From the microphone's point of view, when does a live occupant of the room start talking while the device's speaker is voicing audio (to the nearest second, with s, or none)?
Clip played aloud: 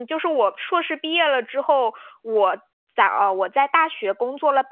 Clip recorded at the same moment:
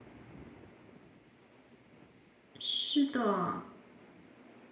3 s